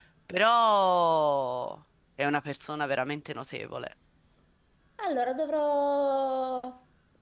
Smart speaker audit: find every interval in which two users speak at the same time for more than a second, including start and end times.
none

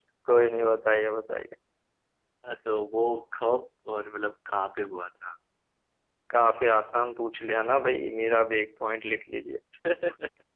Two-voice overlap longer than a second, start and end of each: none

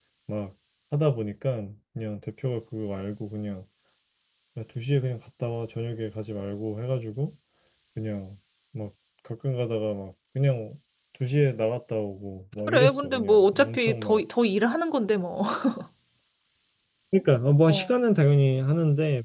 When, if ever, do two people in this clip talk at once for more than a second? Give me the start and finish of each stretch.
12.7-14.2

